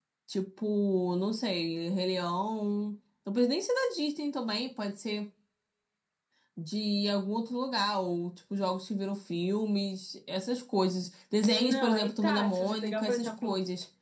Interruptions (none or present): present